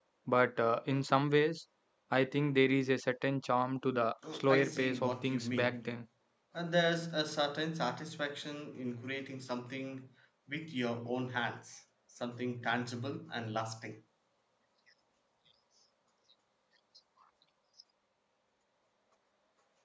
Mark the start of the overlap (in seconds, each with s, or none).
4.2 s